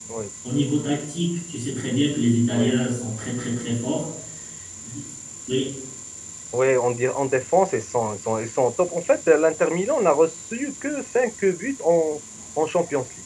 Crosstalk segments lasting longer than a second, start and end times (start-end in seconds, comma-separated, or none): none